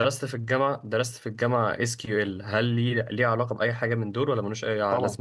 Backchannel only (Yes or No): No